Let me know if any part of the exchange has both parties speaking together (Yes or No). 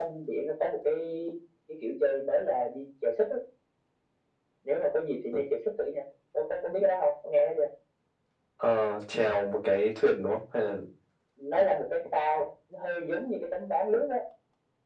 No